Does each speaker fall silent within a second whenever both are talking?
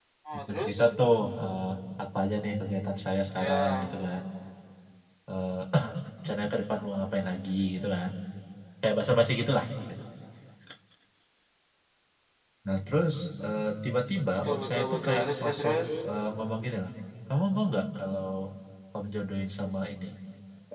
No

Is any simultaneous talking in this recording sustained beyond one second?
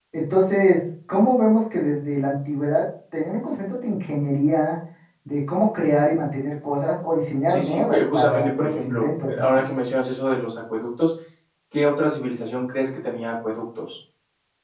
Yes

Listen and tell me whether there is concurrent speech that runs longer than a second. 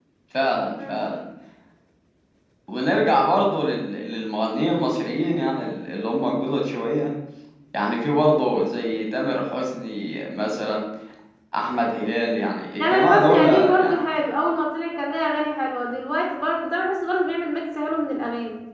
Yes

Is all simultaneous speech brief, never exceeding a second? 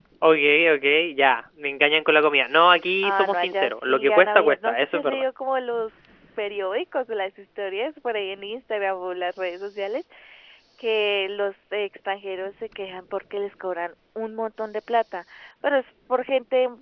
No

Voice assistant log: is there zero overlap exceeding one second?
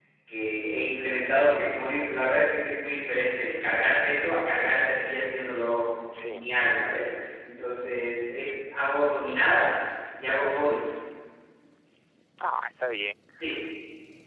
Yes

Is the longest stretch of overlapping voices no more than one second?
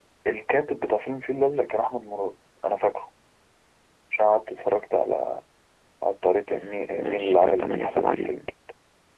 No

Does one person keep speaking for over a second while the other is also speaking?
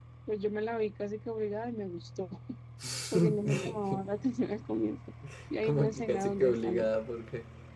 Yes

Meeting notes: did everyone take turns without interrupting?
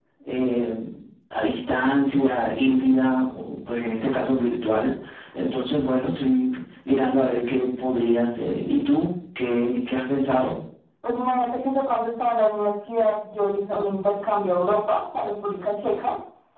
Yes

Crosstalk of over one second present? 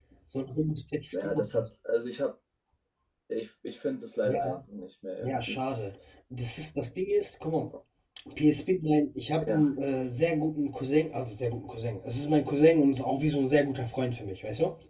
No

